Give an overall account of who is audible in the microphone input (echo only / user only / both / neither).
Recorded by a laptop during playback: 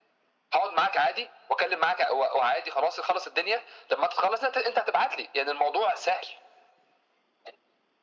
echo only